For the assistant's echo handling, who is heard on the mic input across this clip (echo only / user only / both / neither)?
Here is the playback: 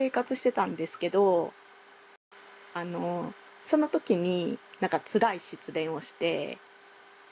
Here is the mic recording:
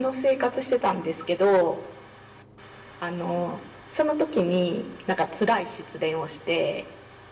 echo only